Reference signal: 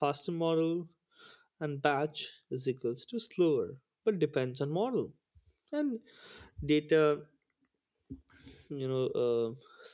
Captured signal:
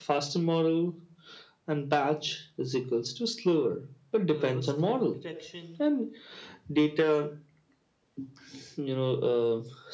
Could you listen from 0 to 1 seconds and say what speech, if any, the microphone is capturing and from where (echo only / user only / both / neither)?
echo only